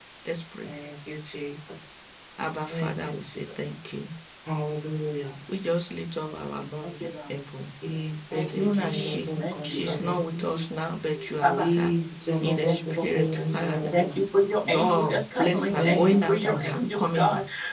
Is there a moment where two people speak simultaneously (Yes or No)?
Yes